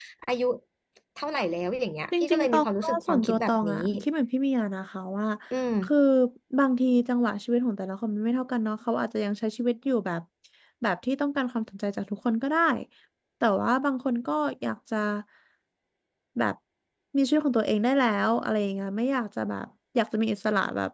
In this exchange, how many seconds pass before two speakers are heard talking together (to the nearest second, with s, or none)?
2 s